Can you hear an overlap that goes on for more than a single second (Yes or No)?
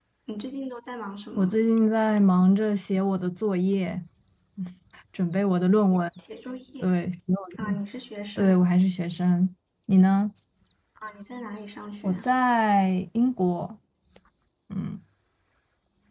No